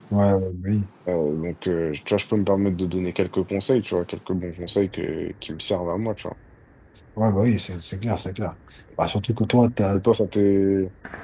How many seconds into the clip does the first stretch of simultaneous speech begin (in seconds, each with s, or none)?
none